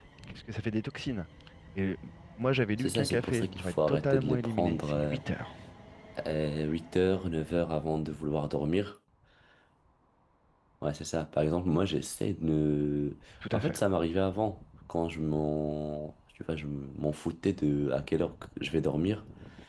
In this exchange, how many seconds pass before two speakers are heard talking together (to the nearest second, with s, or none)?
3 s